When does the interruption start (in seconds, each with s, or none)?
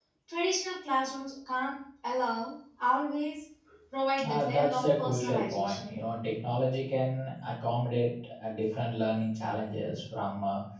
4.2 s